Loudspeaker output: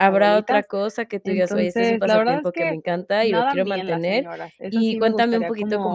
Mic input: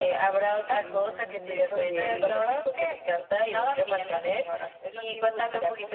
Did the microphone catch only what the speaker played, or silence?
No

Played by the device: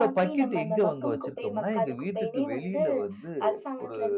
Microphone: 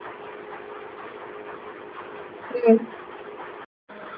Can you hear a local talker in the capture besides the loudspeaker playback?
Yes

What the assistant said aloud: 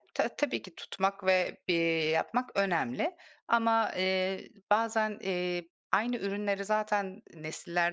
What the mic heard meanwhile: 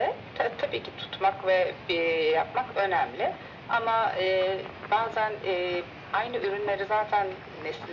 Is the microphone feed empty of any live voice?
Yes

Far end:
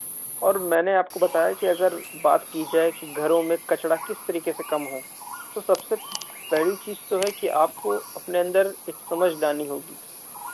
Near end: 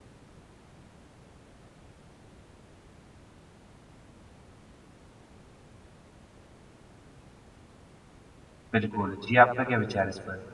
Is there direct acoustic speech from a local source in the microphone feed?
Yes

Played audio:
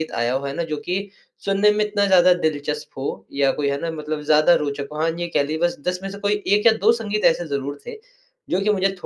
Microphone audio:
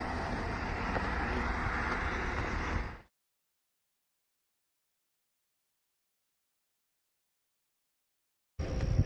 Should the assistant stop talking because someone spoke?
No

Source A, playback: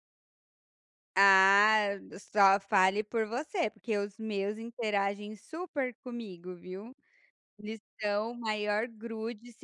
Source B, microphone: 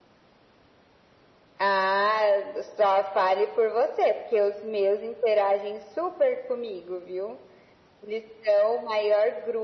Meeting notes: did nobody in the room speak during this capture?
Yes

